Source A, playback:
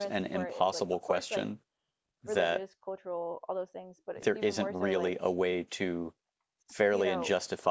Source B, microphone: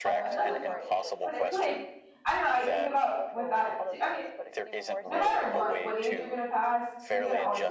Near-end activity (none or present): present